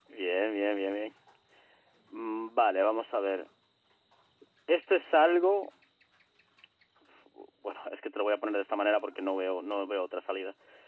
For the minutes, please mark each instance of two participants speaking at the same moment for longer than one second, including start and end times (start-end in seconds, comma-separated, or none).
none